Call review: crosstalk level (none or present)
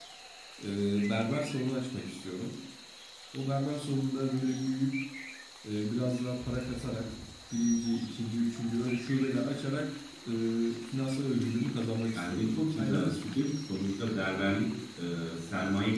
present